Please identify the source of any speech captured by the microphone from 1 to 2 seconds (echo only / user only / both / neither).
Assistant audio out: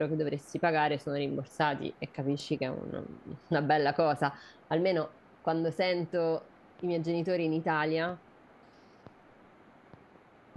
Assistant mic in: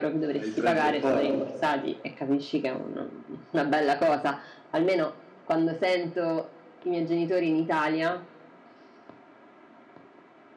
both